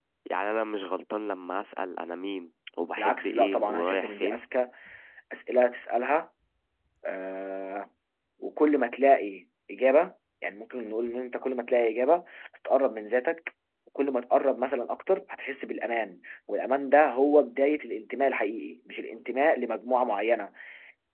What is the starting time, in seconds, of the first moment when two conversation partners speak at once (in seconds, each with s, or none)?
3.0 s